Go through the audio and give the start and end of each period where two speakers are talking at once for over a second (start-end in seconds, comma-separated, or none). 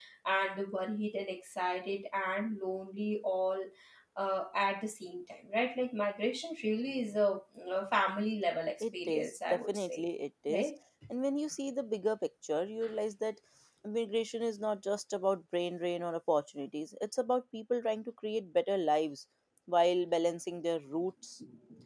8.8-10.1